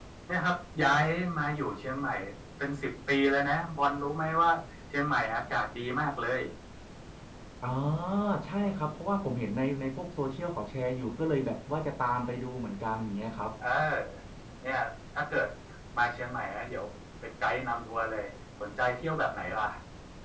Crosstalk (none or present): none